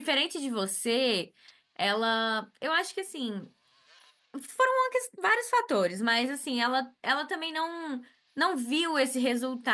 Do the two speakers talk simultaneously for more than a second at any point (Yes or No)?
No